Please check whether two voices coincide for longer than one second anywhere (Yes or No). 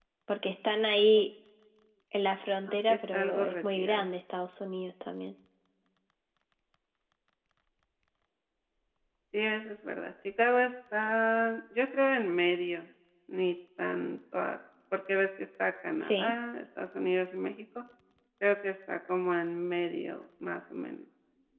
Yes